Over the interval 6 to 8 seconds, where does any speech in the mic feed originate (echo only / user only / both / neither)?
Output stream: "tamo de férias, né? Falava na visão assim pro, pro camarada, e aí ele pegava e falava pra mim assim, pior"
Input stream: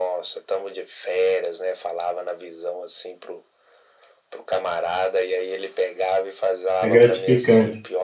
both